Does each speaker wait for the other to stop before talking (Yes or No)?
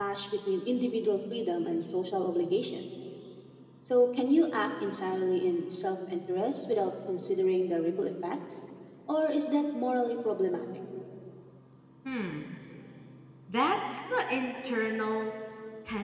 Yes